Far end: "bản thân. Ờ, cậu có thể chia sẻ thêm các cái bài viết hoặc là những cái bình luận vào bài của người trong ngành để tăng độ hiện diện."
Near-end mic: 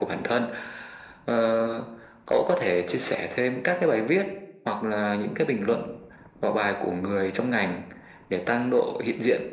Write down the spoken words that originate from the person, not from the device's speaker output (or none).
none